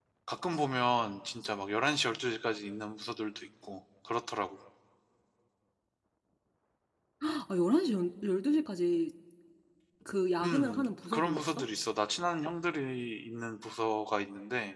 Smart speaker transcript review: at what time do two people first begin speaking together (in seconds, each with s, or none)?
10.4 s